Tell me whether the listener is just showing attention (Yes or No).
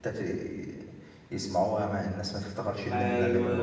No